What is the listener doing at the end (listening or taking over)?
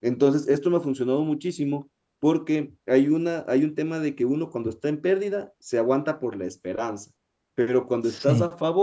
listening